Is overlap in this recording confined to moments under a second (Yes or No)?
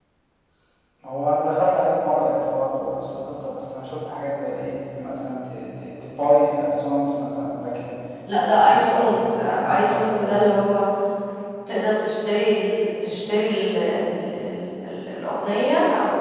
No